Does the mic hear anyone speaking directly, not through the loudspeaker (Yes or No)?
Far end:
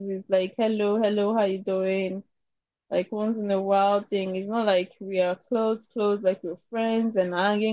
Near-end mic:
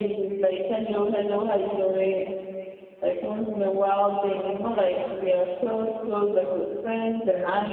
No